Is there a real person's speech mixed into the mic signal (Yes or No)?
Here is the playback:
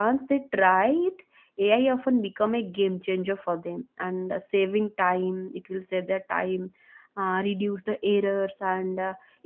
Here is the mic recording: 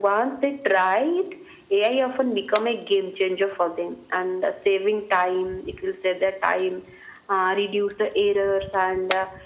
No